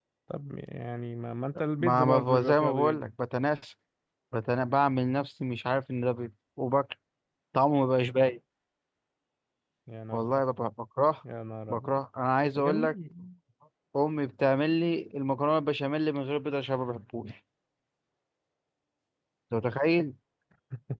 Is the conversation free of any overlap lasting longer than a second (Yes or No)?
No